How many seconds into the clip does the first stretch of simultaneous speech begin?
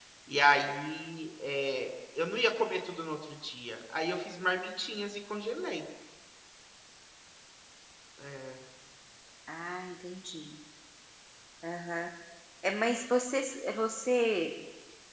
none

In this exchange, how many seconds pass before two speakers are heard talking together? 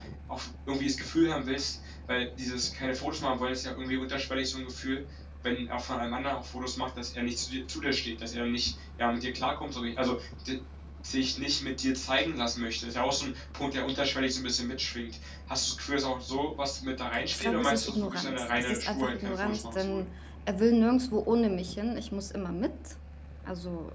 17 s

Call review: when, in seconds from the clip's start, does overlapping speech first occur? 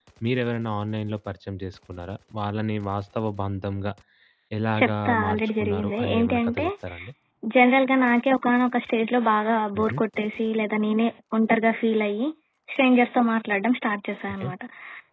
5 s

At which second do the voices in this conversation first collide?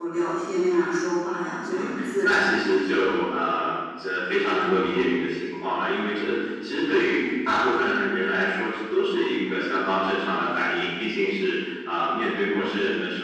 2 s

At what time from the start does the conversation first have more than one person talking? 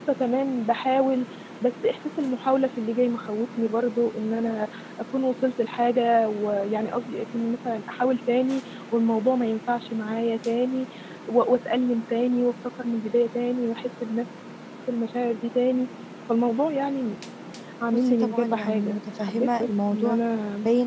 18 s

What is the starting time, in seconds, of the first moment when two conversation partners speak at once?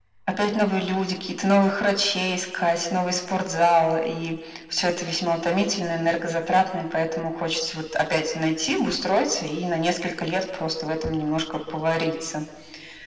none

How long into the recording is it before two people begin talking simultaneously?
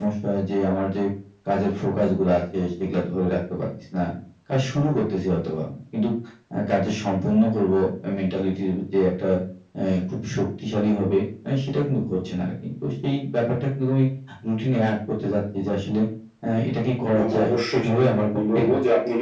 17 s

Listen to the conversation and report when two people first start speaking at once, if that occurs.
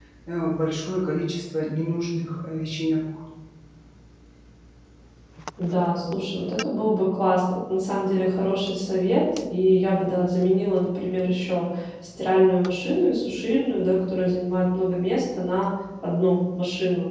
none

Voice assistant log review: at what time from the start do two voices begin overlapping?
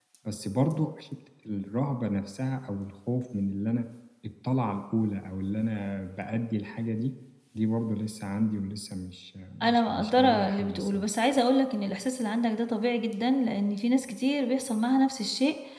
10 s

